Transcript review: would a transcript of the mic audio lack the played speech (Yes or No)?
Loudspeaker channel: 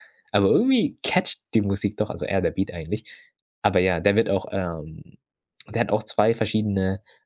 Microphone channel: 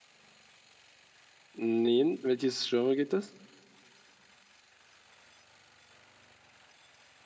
Yes